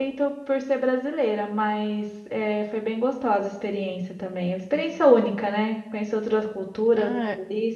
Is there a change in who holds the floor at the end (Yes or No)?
Yes